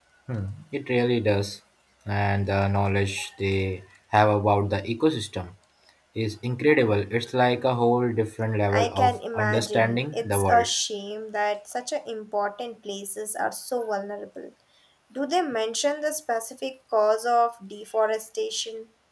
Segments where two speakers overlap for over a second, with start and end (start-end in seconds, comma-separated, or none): 8.7-10.7